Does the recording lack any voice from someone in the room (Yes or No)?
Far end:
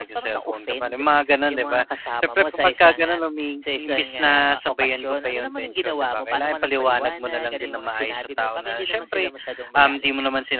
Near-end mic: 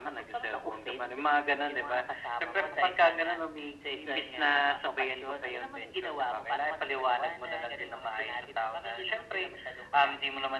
Yes